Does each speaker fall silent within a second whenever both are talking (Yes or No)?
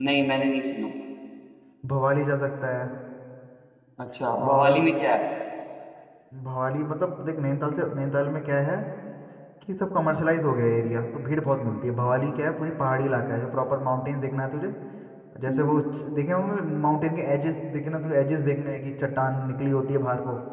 Yes